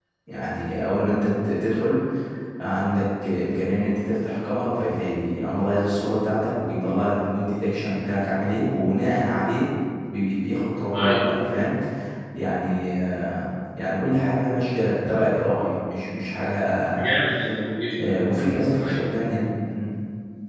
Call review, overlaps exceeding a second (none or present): none